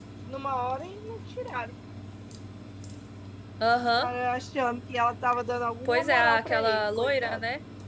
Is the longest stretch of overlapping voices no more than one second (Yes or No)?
No